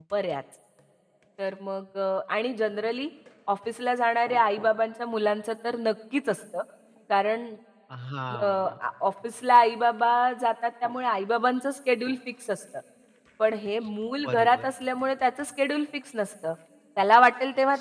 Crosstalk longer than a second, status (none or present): none